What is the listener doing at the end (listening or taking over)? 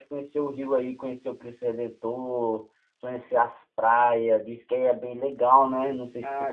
taking over